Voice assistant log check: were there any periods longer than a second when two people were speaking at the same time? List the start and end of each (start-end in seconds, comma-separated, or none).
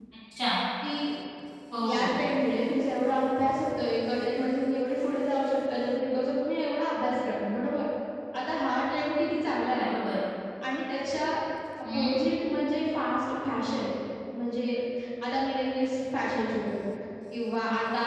none